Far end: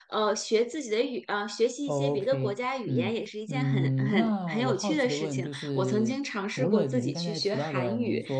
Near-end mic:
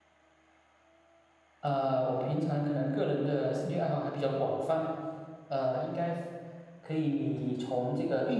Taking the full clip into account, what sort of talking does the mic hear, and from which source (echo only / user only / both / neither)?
user only